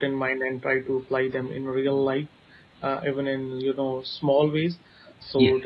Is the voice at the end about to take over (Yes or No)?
No